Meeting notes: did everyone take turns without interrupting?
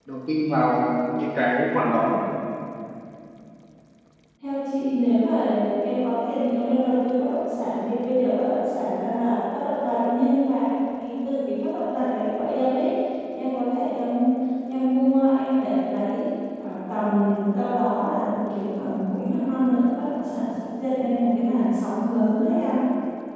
Yes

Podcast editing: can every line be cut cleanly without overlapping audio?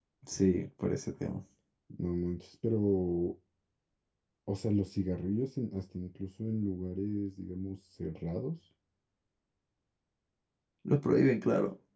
Yes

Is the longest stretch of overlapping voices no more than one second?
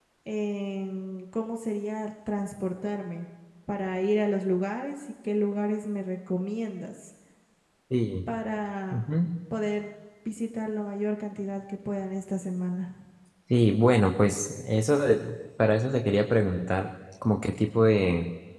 Yes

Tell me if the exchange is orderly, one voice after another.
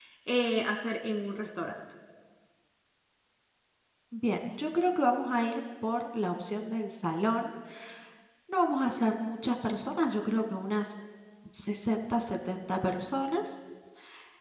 Yes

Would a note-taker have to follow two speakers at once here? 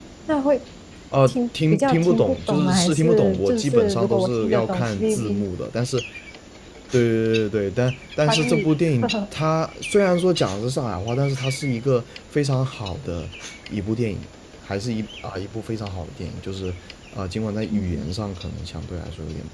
Yes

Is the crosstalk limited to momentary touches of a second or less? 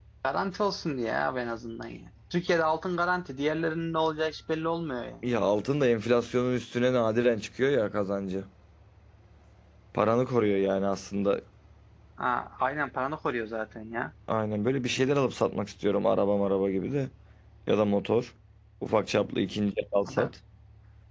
Yes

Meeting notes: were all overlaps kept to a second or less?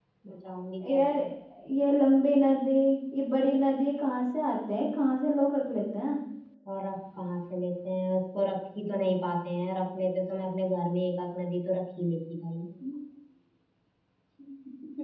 Yes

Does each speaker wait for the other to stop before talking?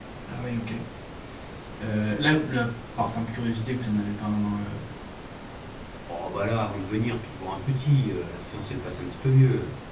Yes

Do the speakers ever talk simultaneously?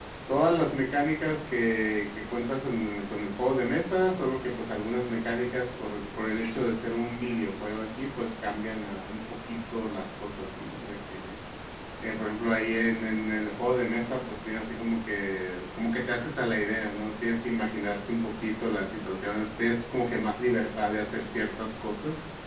No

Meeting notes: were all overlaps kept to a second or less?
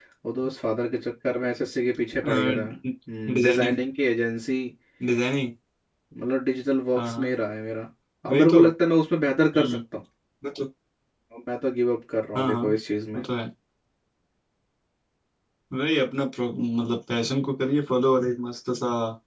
Yes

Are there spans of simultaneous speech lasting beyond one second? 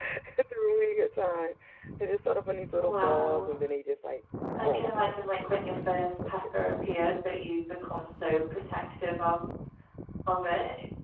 Yes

